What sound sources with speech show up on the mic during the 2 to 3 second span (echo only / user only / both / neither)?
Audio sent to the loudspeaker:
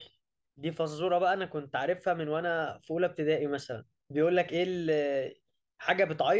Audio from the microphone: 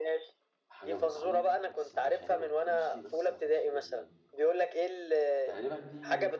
both